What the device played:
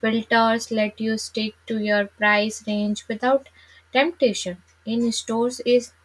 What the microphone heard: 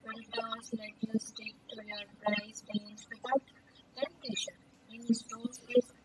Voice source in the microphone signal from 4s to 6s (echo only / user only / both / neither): echo only